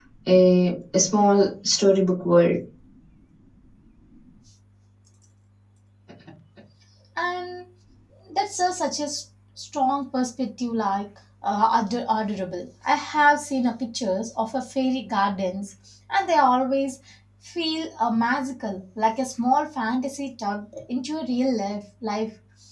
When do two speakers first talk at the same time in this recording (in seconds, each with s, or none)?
none